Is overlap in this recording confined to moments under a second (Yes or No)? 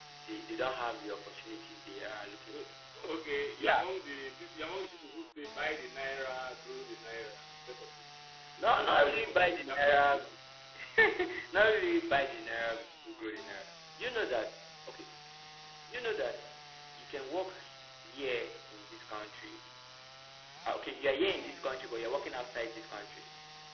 No